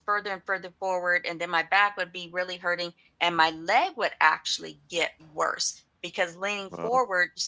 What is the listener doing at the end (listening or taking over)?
listening